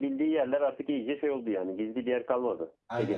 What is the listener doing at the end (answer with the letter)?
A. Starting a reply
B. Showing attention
A